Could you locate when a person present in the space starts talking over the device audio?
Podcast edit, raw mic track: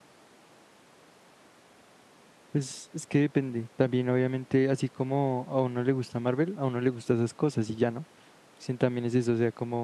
2.5 s

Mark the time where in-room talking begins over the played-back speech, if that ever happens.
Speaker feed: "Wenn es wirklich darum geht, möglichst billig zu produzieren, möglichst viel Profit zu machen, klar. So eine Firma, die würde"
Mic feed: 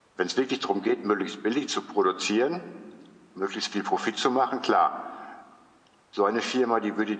none

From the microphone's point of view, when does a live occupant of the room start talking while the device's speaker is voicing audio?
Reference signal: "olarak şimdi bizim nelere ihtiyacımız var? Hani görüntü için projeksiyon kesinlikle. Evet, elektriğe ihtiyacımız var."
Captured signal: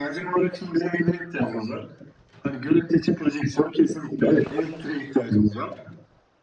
none

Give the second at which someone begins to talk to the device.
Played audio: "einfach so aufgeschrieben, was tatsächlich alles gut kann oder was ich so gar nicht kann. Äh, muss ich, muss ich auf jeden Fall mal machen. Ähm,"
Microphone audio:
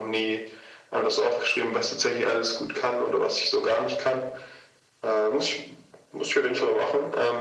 none

